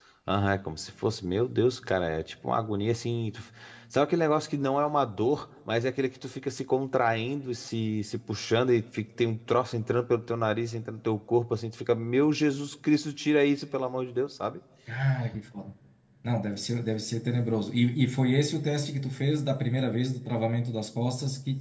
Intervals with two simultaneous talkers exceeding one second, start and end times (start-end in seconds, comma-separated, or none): none